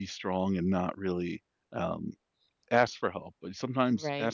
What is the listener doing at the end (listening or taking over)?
listening